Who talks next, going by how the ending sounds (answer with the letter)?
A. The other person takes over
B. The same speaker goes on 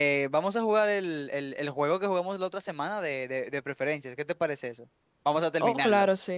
A